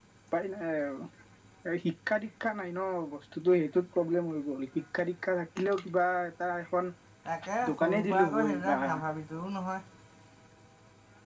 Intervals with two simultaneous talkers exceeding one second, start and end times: 7.7-8.9

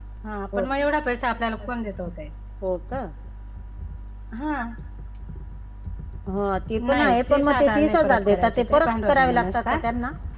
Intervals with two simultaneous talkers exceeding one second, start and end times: 6.9-9.8

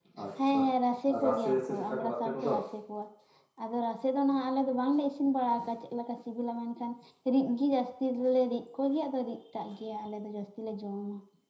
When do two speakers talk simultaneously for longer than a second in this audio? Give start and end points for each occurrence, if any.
1.1-2.5

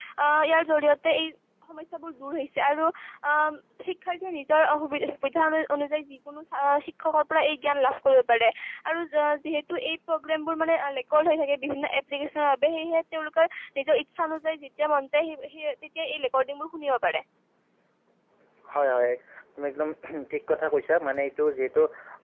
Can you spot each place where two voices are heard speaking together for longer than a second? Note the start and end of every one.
none

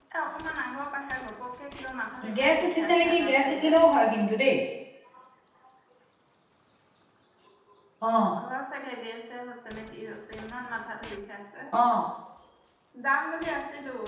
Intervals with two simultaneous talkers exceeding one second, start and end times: 2.4-3.8

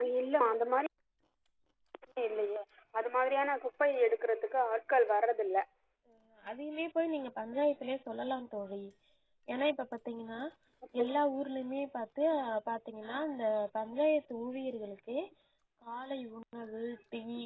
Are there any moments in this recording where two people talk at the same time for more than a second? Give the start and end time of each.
none

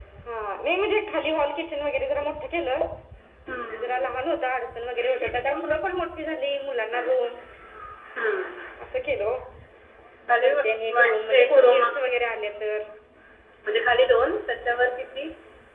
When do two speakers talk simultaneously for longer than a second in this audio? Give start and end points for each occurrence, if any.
10.4-11.8

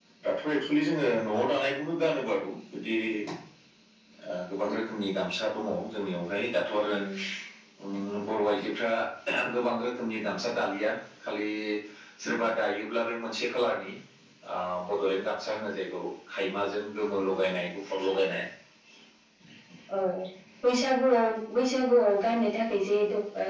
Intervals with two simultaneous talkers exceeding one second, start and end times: none

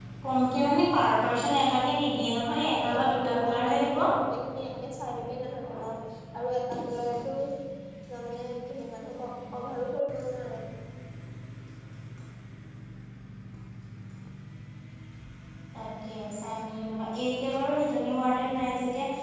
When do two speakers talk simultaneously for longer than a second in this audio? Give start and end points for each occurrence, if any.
2.7-4.0

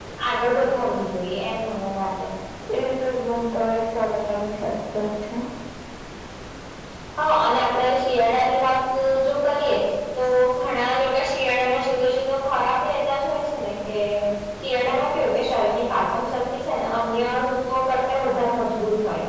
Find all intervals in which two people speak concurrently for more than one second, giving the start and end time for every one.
none

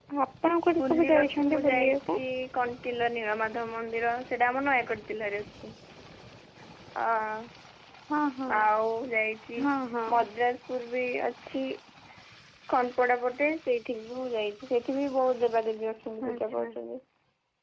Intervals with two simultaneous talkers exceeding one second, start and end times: 0.8-2.2

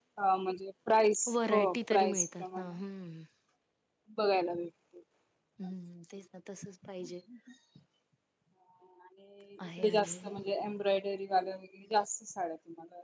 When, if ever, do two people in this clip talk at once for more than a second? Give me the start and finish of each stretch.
1.3-2.7

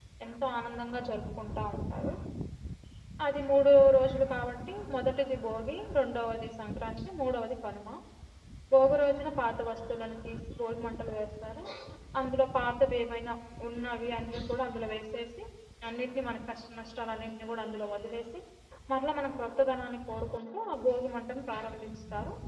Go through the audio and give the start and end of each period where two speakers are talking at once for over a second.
none

